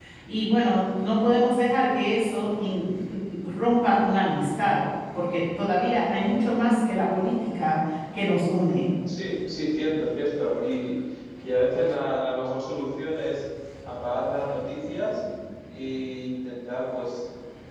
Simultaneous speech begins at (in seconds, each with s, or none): none